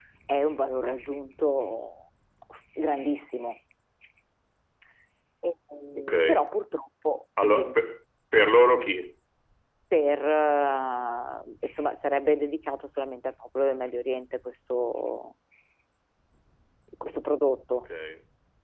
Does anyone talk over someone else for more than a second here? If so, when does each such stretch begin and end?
none

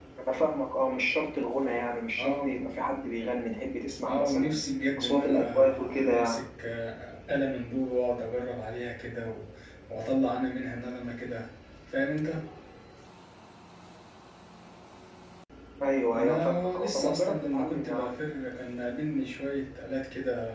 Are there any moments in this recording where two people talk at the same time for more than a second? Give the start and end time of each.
5.0-6.4, 16.1-18.2

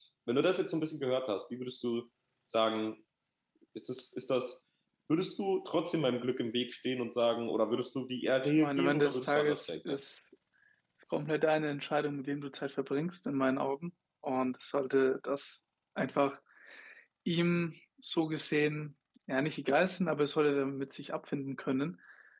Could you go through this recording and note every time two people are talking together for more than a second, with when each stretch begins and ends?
8.6-10.0

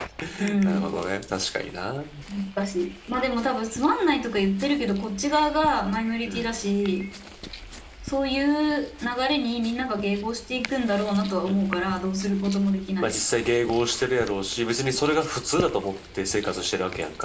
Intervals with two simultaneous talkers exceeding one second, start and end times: none

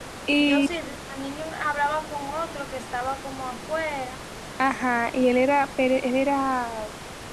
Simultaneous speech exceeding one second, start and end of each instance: none

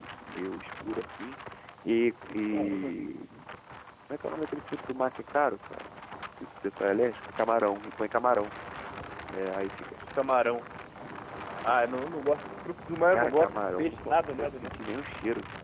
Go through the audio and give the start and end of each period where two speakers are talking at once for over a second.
13.1-14.7

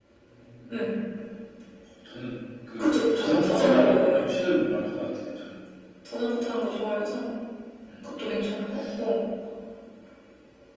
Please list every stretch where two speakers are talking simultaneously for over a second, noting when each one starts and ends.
2.8-4.4

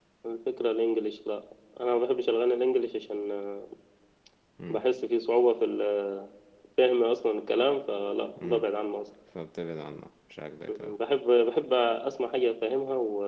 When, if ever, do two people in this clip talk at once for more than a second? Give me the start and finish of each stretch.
none

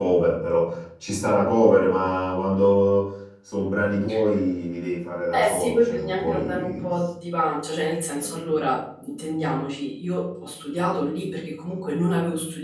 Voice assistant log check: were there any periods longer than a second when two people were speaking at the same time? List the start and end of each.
5.3-6.9

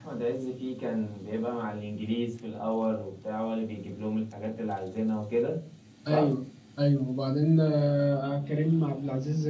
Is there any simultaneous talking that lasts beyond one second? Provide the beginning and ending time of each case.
none

